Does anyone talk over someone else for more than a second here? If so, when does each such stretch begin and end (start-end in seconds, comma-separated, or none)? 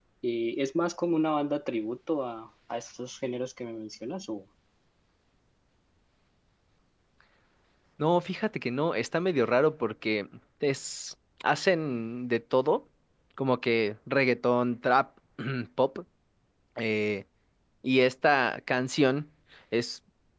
none